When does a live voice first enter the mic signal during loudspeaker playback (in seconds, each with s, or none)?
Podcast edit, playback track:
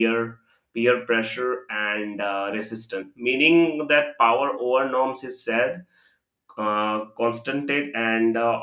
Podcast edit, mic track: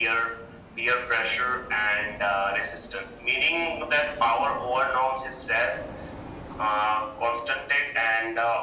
none